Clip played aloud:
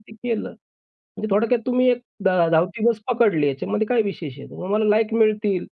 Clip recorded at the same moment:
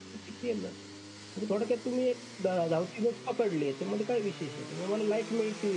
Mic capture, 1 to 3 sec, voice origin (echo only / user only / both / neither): echo only